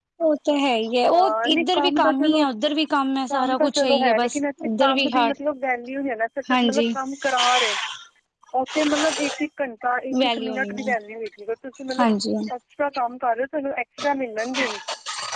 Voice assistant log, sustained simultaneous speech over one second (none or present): present